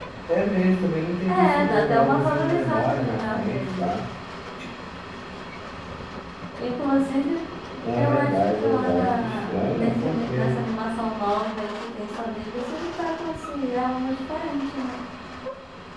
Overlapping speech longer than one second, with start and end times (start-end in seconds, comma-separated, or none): 1.3-3.9, 8.0-10.6